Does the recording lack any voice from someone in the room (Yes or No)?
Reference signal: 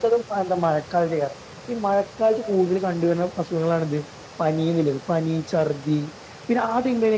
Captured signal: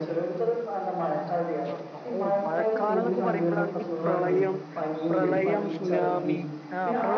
No